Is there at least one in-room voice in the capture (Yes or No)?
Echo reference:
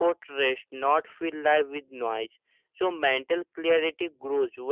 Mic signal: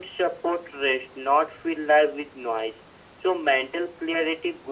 No